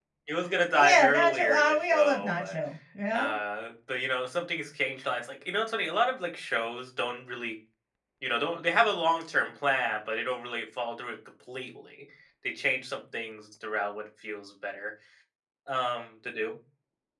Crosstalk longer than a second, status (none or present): present